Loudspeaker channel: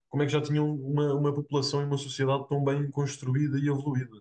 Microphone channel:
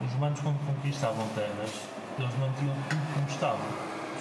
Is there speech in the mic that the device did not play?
Yes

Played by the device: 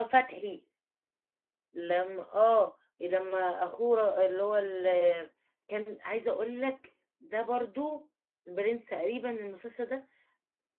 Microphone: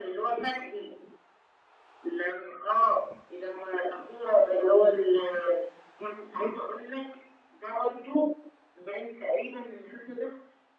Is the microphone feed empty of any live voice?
Yes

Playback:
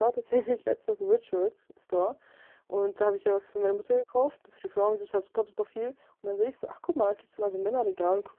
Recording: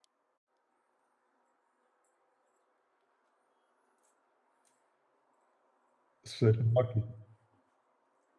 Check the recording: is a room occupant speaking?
Yes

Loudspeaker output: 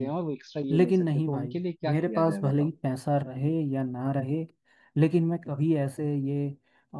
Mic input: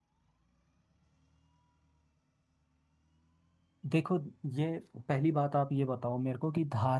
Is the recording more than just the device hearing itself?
Yes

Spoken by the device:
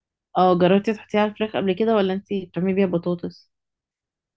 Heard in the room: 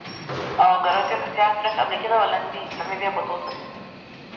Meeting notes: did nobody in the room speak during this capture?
Yes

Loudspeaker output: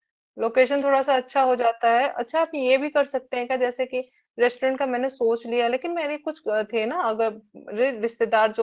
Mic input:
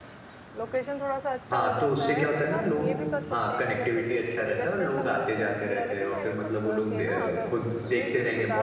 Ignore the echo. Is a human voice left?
Yes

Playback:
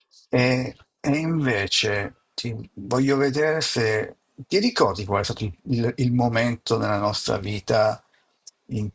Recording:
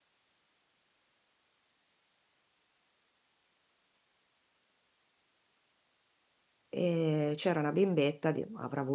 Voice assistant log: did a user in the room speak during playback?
Yes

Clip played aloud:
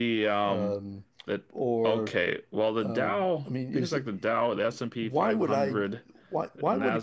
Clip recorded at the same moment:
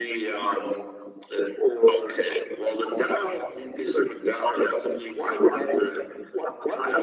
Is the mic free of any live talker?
Yes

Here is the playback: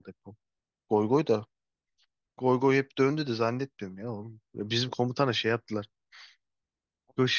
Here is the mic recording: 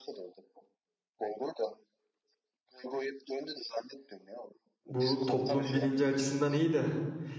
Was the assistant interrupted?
Yes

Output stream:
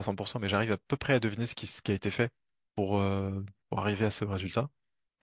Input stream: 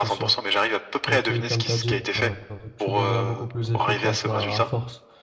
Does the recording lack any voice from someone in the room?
No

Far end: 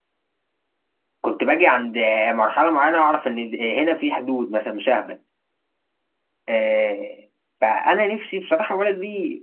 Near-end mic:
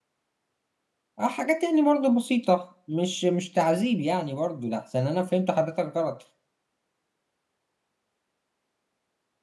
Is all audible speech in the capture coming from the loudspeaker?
No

